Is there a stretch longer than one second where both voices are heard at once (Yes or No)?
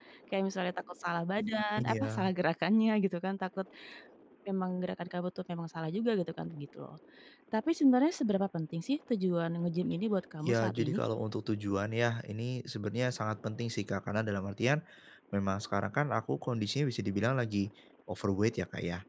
No